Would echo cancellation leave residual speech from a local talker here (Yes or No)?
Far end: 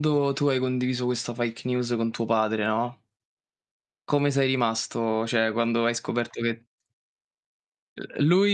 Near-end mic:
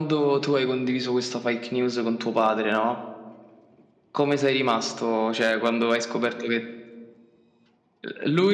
No